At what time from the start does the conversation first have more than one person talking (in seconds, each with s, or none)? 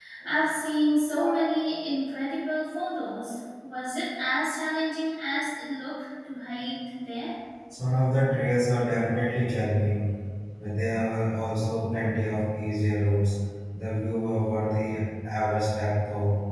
none